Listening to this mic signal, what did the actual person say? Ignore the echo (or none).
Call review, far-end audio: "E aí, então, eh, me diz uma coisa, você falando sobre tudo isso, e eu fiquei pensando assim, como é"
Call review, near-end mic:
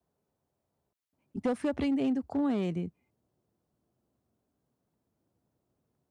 Então eu fui aprendendo com ele,